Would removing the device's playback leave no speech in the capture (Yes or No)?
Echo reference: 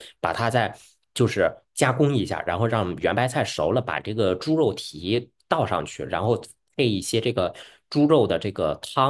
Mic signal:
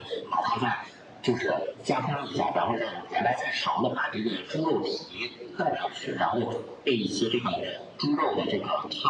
Yes